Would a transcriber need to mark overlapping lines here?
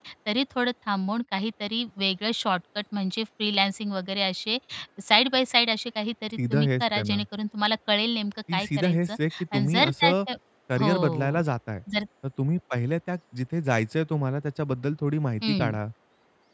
Yes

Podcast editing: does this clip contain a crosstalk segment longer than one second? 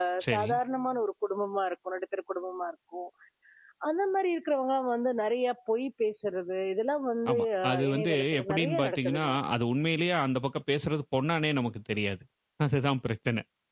Yes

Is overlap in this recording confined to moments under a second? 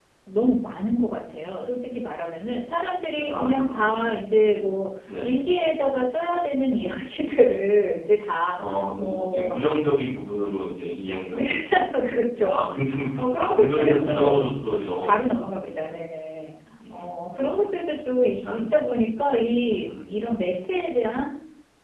No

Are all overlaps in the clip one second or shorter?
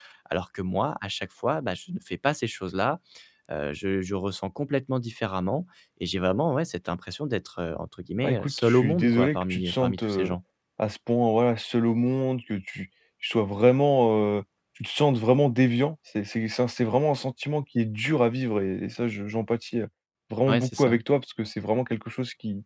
No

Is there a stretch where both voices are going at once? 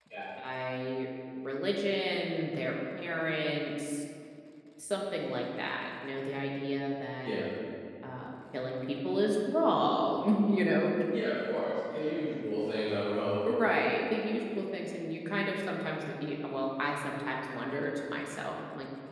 No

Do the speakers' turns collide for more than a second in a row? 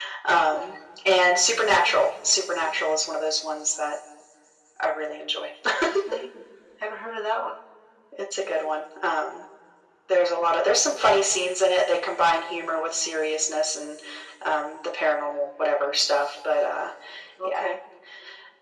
No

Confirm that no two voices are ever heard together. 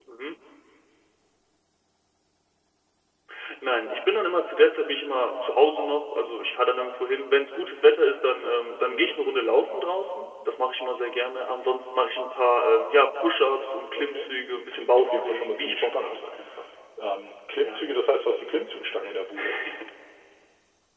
No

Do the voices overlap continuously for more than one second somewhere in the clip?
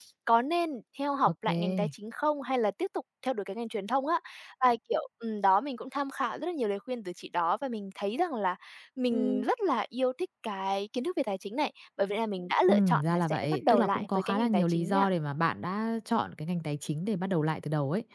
Yes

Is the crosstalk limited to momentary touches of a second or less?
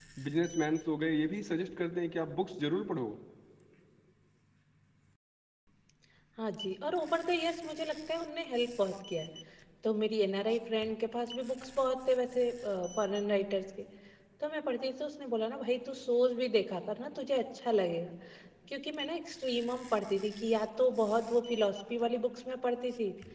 Yes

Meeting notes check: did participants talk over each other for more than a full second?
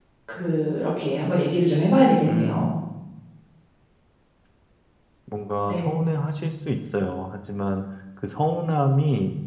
No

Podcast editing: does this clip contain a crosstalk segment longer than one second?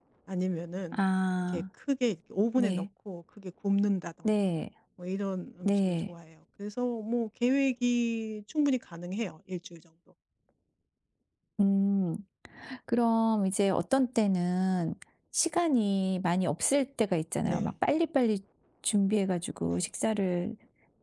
No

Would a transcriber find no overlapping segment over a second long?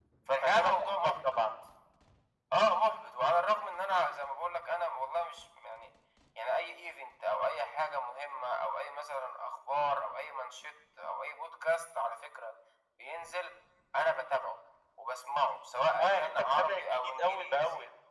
No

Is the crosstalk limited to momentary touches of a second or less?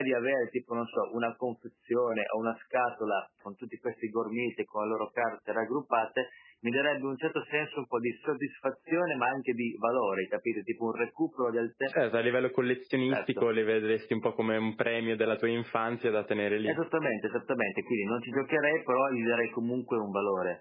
Yes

